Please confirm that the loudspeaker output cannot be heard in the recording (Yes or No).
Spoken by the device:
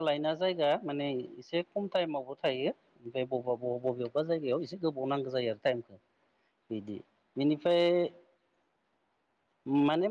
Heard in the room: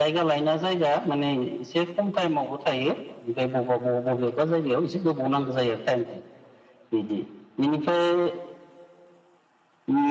No